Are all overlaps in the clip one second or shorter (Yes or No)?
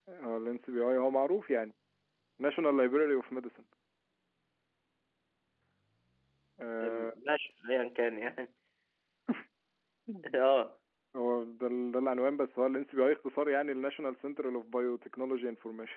Yes